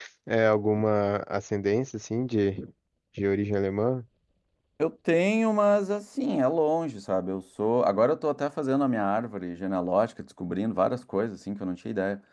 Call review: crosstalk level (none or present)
none